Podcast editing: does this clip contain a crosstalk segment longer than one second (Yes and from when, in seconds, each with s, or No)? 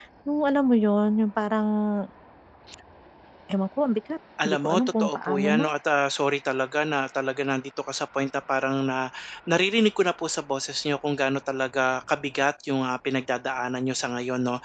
Yes, from 4.4 s